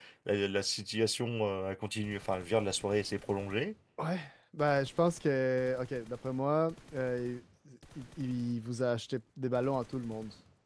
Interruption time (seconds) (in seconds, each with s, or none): none